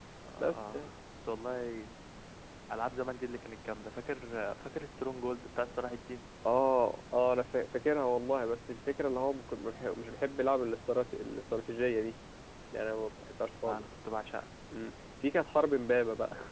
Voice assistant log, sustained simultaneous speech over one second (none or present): none